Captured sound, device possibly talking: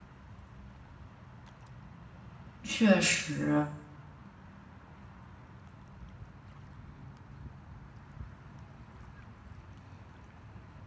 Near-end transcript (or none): 确实，